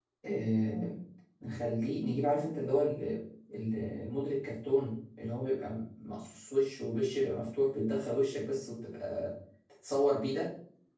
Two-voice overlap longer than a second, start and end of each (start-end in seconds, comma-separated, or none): none